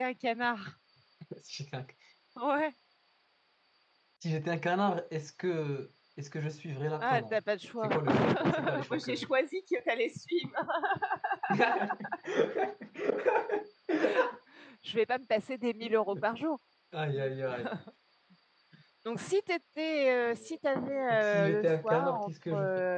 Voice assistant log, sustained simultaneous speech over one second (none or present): present